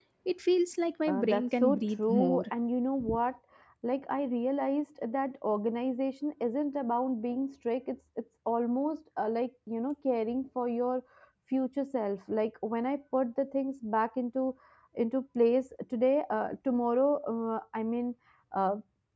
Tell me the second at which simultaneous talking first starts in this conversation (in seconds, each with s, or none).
1.1 s